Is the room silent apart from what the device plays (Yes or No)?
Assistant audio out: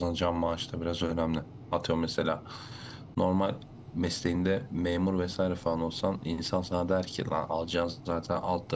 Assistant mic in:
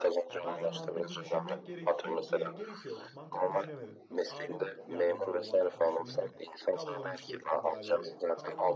No